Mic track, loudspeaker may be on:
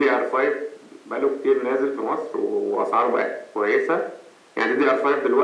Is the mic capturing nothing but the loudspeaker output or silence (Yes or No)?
Yes